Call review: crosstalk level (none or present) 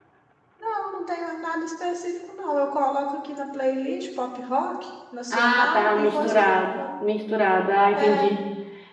present